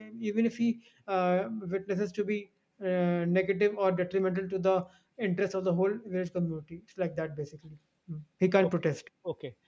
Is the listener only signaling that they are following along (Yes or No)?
No